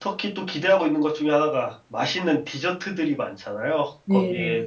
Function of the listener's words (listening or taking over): listening